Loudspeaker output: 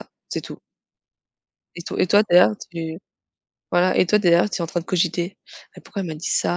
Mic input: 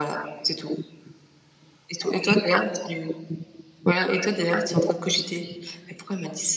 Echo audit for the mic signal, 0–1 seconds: echo only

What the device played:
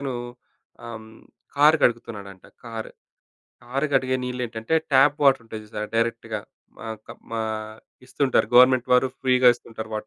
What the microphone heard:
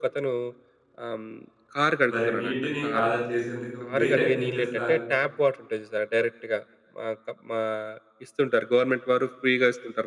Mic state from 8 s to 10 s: echo only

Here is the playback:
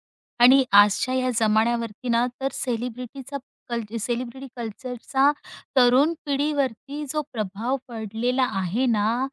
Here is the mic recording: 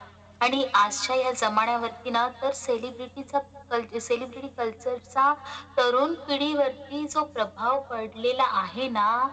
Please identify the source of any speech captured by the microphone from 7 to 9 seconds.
echo only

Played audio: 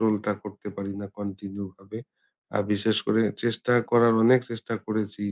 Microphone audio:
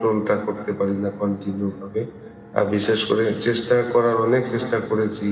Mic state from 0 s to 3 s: echo only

